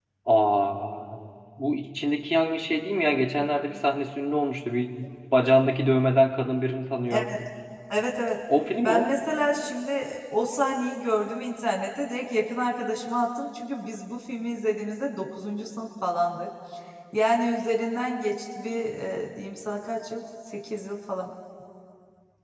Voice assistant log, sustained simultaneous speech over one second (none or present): none